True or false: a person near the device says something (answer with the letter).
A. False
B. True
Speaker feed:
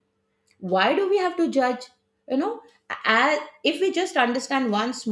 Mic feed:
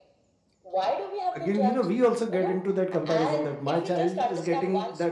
B